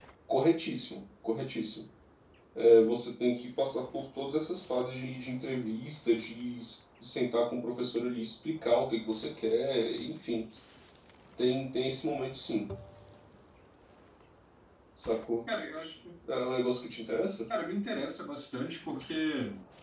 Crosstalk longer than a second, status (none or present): none